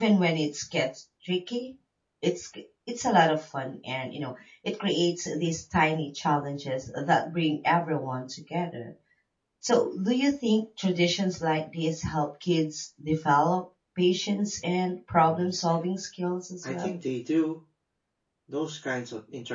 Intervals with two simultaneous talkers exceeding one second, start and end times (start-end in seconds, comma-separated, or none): none